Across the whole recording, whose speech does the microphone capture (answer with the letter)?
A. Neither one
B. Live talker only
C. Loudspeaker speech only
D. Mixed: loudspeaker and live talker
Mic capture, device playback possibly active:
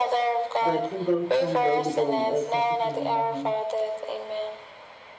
D